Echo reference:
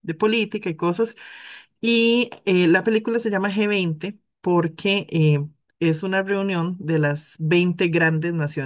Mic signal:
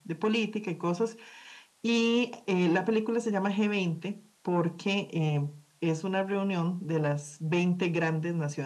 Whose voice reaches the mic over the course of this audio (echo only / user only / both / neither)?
echo only